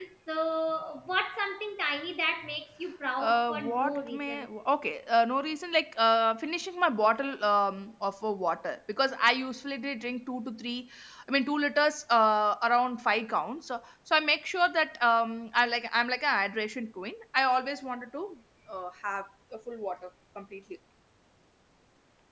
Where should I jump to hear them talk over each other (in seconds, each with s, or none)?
3.2 s